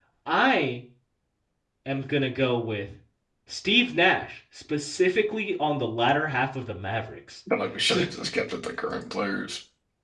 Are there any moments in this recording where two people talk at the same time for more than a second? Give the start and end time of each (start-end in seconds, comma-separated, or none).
none